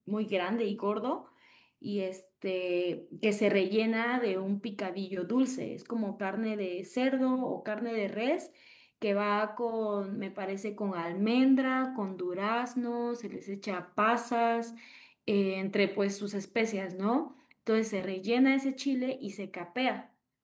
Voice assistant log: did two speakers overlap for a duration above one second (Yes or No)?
No